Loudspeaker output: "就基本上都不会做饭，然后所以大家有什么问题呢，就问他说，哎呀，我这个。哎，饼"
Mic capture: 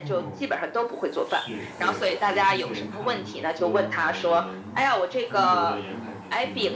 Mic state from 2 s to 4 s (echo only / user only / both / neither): both